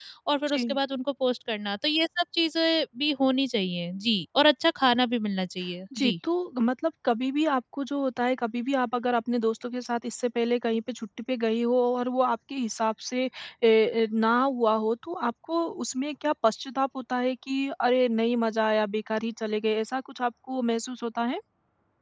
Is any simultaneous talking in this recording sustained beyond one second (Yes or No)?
No